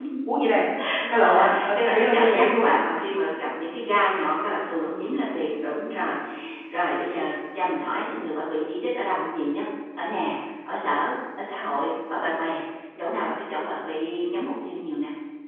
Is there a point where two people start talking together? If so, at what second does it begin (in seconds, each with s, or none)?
1.1 s